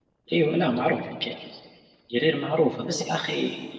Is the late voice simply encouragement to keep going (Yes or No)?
Yes